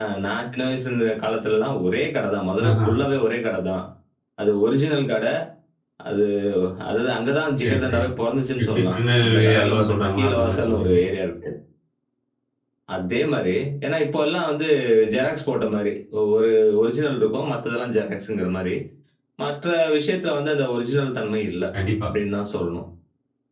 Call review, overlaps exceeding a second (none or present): present